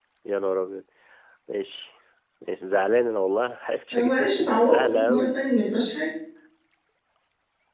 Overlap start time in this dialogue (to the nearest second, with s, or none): 4 s